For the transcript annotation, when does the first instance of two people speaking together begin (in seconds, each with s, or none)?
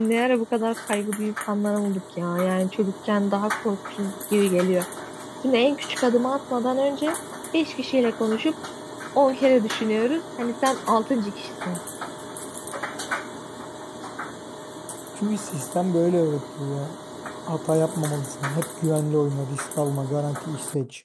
none